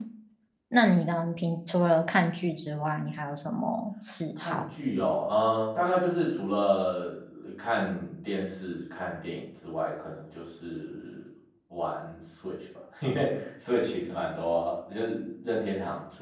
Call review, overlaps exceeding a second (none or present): none